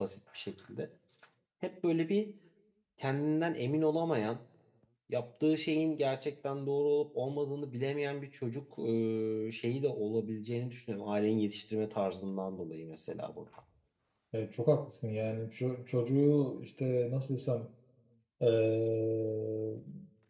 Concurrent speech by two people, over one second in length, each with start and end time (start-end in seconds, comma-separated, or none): none